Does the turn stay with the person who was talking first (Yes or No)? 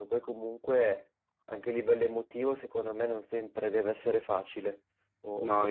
No